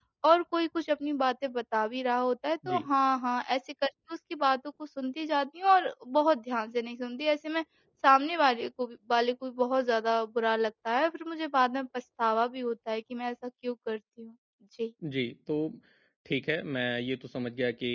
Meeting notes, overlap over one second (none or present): none